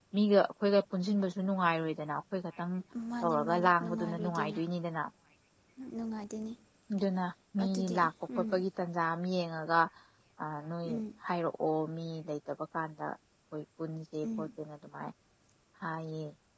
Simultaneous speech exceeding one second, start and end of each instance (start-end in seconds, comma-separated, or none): 3.2-4.6